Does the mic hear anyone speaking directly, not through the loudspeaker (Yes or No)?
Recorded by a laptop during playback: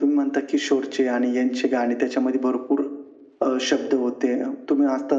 No